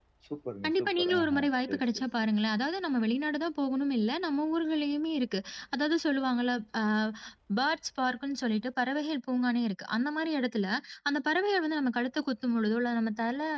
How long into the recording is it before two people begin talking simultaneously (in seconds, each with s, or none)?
0.6 s